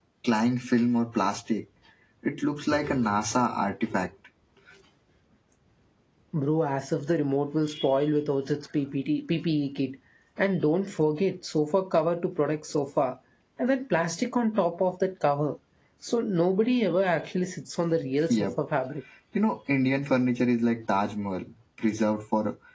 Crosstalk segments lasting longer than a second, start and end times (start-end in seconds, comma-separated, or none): none